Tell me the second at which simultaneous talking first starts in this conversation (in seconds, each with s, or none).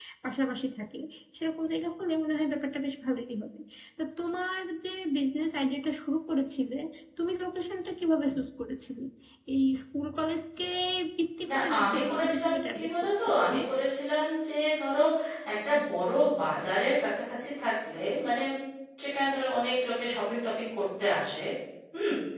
11.5 s